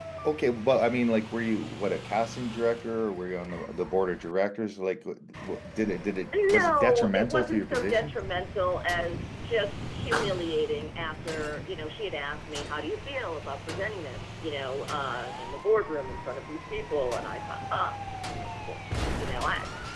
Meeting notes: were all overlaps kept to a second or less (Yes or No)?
No